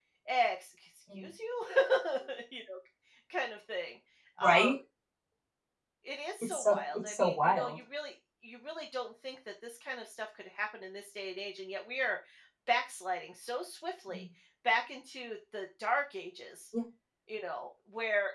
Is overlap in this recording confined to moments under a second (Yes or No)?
No